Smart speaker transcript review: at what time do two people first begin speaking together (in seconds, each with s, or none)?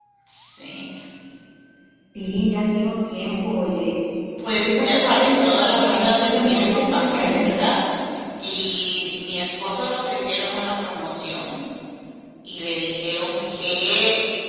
4.5 s